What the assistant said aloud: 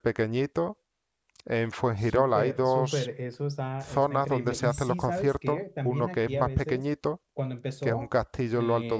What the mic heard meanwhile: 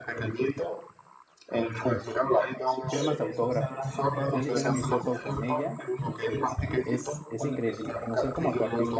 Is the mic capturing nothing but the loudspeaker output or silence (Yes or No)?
No